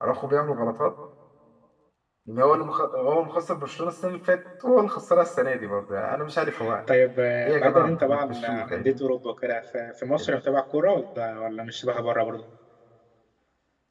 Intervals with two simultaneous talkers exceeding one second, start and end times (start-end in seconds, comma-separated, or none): 7.4-9.0